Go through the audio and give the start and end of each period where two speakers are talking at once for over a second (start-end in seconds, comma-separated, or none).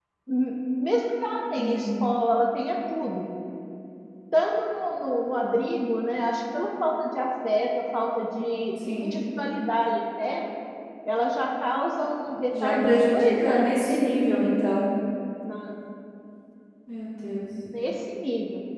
12.5-14.0